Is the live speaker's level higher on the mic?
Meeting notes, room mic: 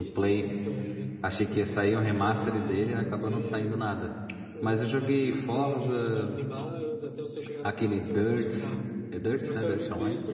Yes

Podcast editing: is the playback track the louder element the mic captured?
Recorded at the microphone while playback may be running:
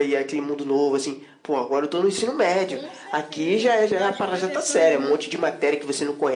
Yes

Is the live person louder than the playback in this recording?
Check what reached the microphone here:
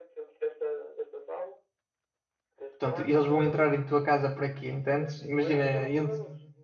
Yes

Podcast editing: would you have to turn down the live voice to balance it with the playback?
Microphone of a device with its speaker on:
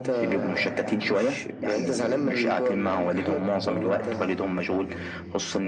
No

